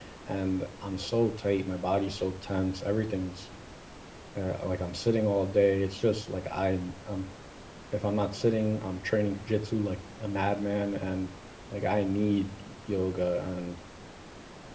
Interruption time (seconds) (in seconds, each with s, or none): none